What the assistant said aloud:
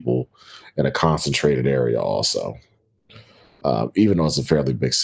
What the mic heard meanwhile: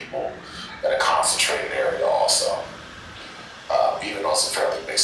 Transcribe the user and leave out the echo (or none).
none